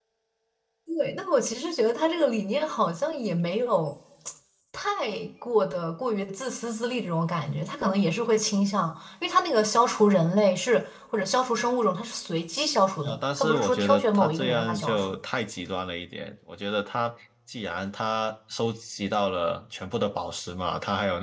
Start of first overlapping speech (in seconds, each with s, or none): 13.0 s